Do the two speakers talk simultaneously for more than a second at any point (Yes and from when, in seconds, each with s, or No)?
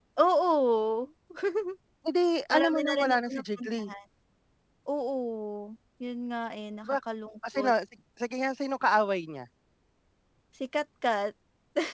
Yes, from 2.5 s